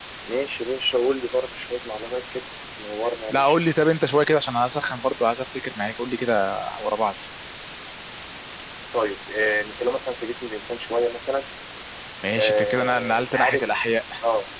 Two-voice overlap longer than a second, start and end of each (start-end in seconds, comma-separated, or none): 12.4-13.6